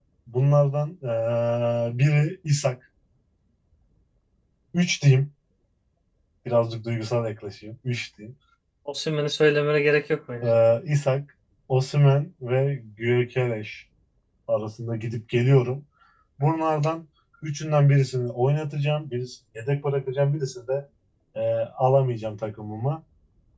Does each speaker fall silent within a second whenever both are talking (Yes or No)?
Yes